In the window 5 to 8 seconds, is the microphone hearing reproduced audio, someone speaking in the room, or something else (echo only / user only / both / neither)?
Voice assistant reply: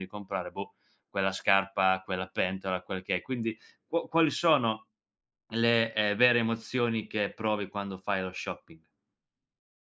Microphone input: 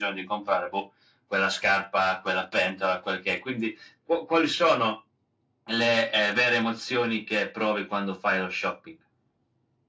echo only